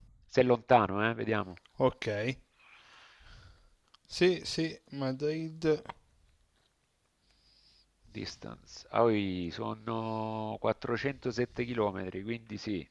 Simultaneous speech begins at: none

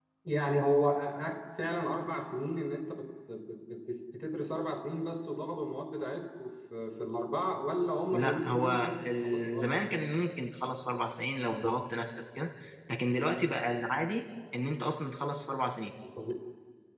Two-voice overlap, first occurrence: 8.1 s

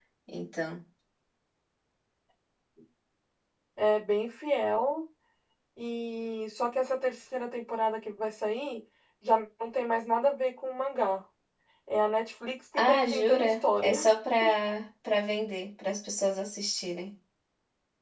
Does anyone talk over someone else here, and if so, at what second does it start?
12.7 s

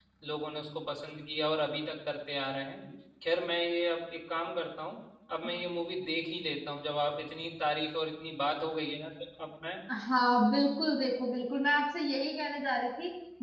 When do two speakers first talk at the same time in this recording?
none

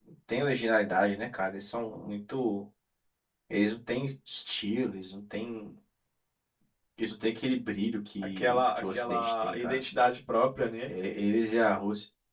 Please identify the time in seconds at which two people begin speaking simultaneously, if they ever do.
8.4 s

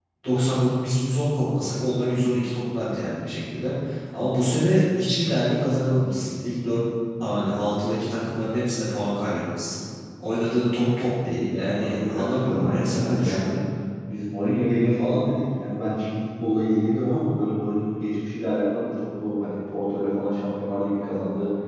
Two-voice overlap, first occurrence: 11.5 s

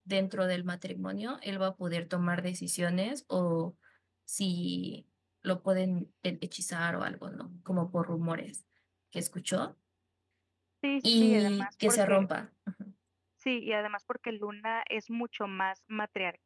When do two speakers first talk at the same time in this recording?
11.0 s

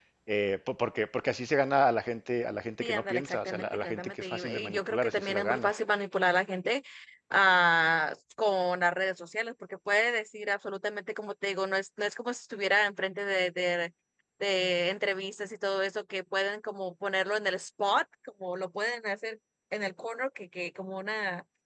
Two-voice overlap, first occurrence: 2.8 s

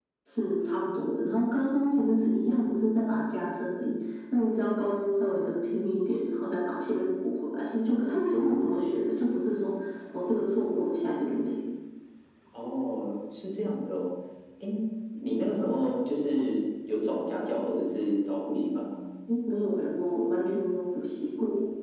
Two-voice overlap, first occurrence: none

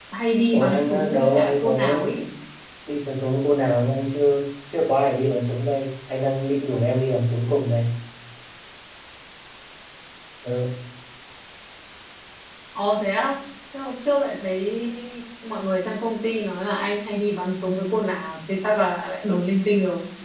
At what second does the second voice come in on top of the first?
0.5 s

